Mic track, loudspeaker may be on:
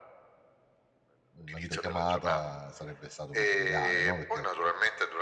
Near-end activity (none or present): present